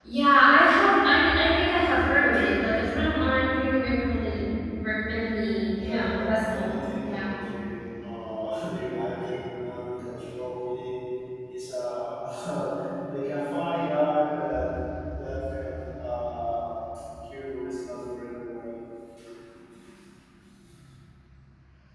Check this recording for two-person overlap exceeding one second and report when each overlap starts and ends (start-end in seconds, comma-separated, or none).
5.4-7.3